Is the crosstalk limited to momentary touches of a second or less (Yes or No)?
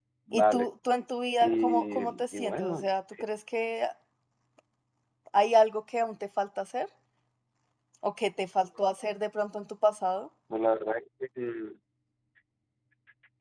No